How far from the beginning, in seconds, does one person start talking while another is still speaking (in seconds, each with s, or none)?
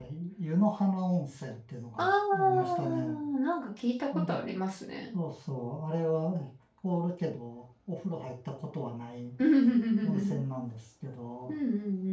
2.0 s